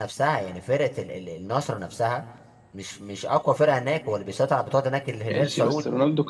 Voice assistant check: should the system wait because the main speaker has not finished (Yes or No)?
No